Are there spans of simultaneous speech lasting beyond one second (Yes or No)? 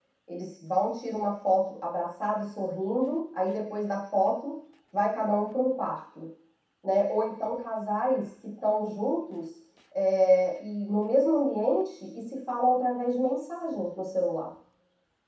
No